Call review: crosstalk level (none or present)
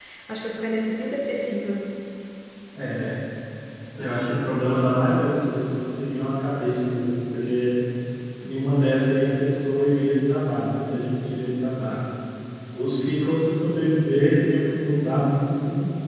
none